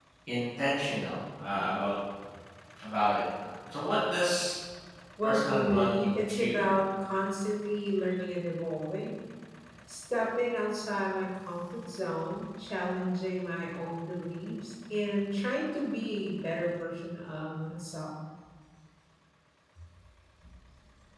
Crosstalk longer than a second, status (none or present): present